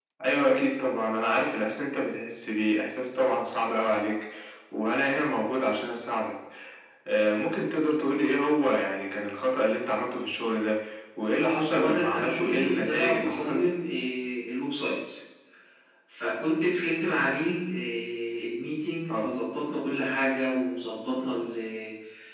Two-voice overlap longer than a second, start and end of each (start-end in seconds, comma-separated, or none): 11.5-13.6